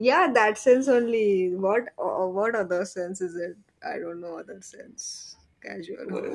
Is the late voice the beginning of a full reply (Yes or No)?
Yes